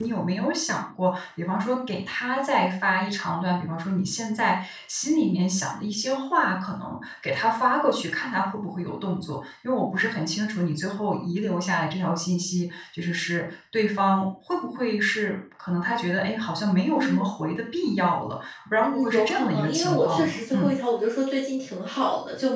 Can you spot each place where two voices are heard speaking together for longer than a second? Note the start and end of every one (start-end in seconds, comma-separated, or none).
18.8-20.7